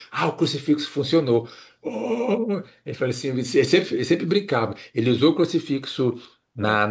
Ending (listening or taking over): listening